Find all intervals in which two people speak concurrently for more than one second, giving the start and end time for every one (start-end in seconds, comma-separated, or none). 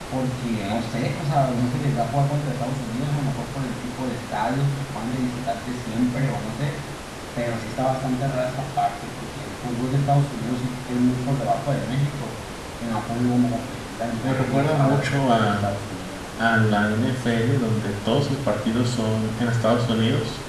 14.2-15.7